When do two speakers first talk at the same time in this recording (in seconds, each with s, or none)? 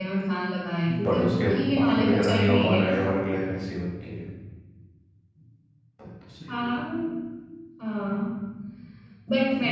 1.0 s